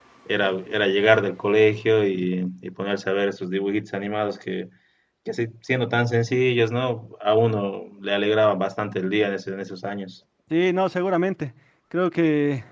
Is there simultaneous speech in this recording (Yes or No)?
No